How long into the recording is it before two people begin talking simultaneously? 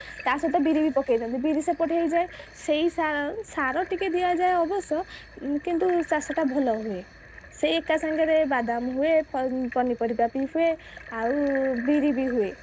none

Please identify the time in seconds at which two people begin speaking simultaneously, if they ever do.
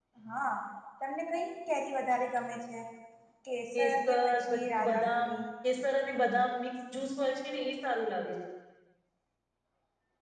4 s

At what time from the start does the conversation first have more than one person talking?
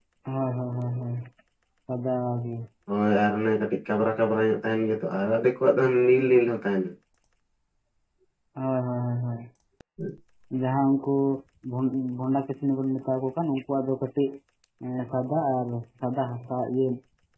none

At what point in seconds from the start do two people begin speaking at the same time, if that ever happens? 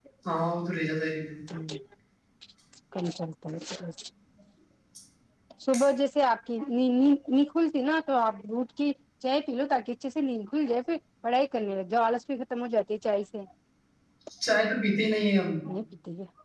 none

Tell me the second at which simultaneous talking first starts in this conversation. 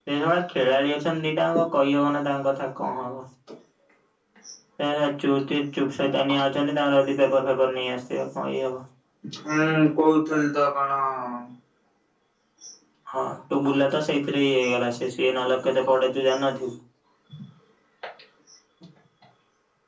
none

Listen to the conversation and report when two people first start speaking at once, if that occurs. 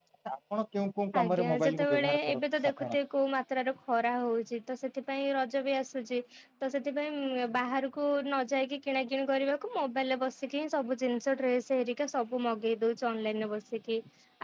1 s

